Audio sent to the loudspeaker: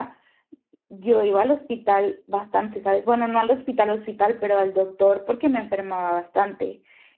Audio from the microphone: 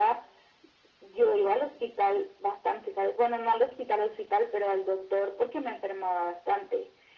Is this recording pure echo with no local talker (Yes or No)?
Yes